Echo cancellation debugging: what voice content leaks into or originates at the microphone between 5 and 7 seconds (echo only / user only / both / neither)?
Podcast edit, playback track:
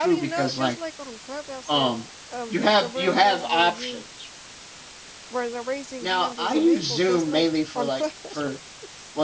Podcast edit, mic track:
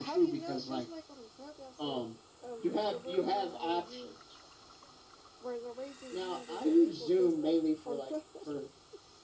echo only